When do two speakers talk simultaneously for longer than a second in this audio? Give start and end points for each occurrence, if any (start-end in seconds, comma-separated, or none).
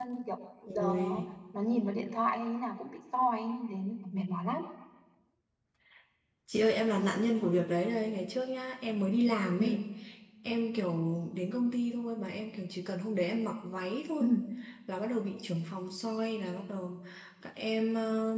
none